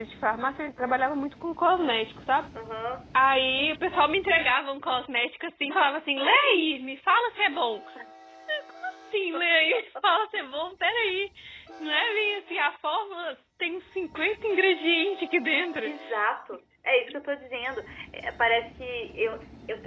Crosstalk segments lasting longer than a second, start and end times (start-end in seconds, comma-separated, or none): none